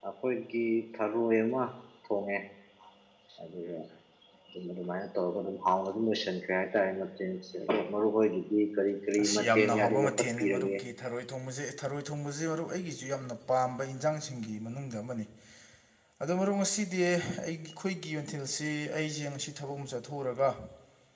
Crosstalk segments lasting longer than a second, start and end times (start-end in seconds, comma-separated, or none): 9.2-10.7